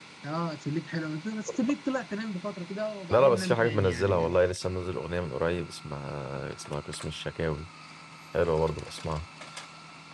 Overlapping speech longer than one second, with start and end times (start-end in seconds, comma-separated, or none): 3.1-4.3